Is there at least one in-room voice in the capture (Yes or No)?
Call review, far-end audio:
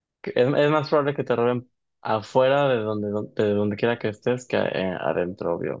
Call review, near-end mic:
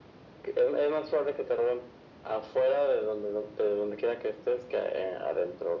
No